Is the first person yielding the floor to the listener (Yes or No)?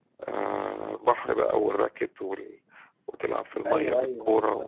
Yes